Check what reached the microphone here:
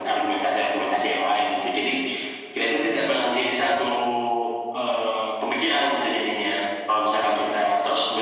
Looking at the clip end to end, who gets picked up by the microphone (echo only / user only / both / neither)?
echo only